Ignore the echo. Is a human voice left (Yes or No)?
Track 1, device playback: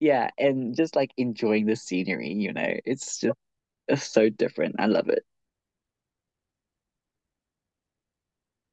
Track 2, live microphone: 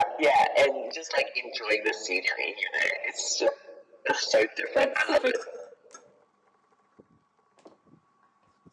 Yes